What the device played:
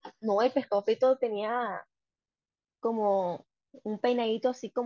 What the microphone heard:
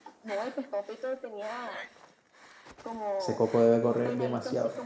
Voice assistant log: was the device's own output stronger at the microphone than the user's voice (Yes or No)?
No